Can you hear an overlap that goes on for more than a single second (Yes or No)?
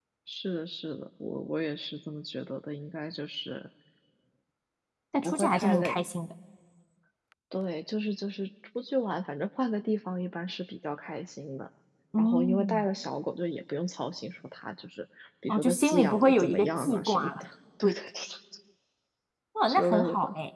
Yes